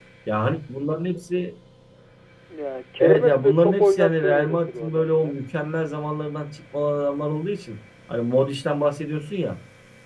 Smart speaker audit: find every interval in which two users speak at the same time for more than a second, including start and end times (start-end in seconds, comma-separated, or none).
3.0-5.3